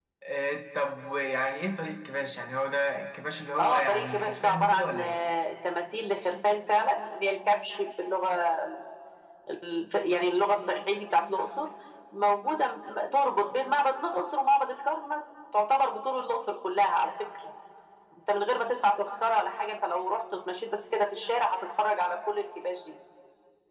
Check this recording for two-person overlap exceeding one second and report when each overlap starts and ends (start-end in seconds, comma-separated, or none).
3.6-5.2